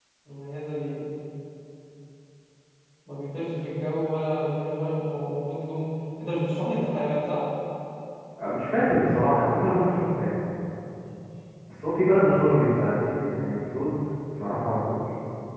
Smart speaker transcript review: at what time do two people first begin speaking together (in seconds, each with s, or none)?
none